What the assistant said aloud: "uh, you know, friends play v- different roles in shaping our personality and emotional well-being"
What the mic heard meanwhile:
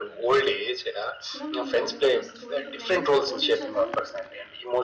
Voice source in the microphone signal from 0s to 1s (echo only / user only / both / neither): echo only